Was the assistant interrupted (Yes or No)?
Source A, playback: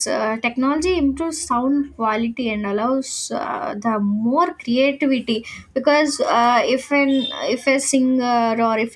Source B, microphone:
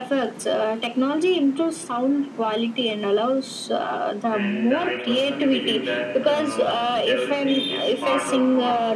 Yes